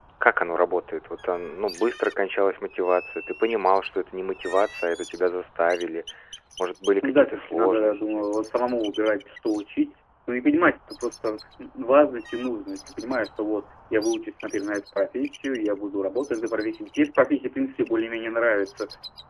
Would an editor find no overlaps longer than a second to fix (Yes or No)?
No